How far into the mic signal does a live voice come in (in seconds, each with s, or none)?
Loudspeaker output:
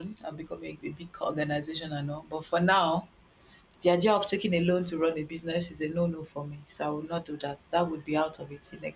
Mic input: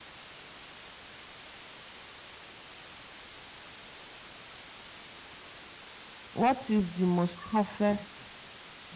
6.3 s